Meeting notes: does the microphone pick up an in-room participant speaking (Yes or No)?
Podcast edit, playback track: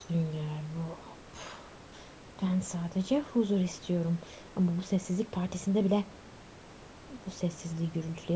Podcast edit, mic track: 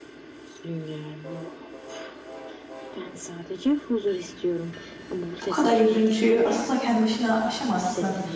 Yes